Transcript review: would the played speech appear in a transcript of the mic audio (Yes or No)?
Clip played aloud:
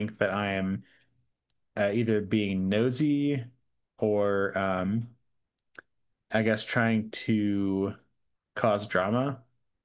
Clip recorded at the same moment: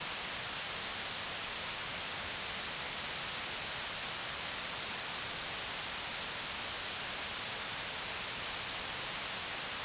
No